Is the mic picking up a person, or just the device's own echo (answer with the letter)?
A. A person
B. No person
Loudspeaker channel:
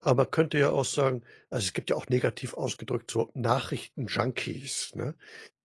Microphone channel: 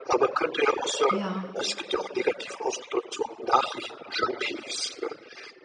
A